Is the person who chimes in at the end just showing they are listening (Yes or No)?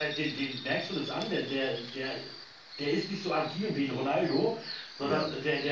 Yes